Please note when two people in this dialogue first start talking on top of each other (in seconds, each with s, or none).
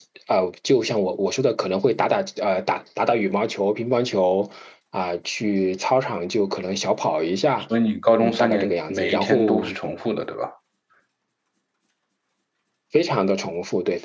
8.2 s